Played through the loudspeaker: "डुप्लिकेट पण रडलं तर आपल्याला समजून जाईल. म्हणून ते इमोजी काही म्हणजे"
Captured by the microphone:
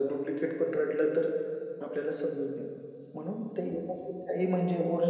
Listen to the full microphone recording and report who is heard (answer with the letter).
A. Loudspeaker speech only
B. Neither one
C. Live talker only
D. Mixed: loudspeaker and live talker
A